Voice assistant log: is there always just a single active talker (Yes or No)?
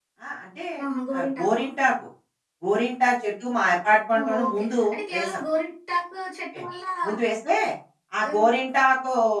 No